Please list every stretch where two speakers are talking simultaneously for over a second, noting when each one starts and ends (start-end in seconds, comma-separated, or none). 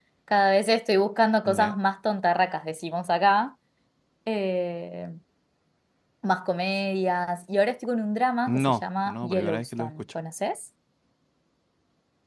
8.5-10.0